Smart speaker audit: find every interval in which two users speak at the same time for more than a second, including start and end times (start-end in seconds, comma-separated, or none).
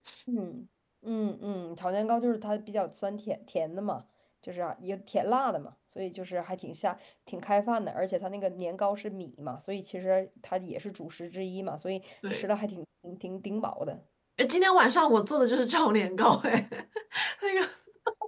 none